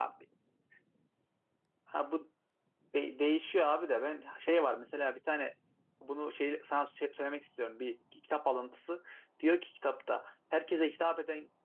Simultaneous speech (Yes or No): No